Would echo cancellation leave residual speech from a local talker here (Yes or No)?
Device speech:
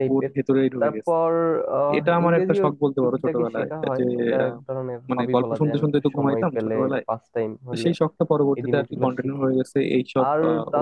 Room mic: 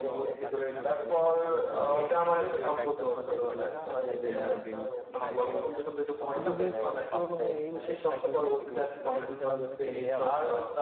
Yes